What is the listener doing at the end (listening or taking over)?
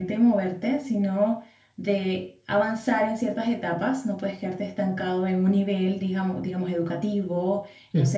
listening